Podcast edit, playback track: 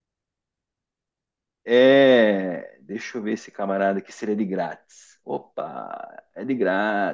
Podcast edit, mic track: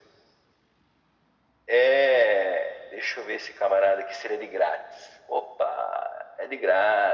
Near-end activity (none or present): none